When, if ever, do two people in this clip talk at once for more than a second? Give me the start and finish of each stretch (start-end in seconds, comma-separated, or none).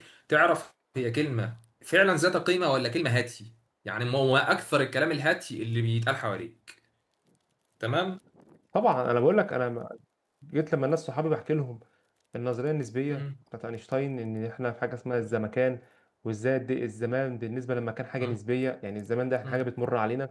none